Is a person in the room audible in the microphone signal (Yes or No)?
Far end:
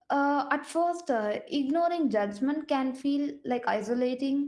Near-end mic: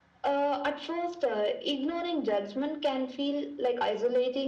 No